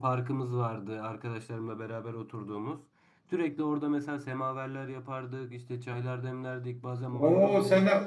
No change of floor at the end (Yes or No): No